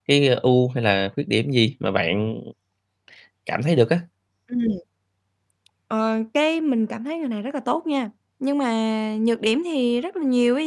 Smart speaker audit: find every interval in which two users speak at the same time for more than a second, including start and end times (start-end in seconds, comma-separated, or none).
none